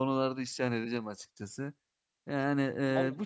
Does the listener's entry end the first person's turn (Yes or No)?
No